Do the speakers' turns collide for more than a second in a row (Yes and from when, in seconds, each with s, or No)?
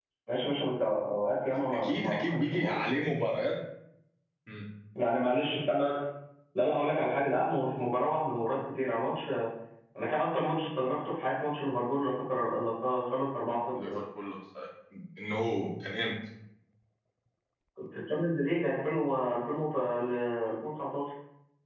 Yes, from 1.5 s